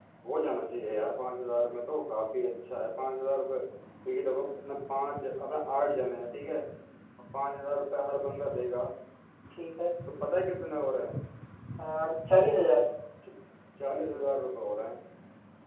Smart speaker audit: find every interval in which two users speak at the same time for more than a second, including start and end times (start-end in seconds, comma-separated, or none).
none